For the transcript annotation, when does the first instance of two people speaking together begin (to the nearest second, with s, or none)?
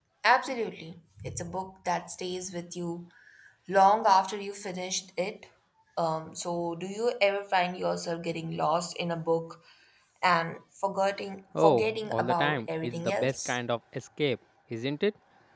12 s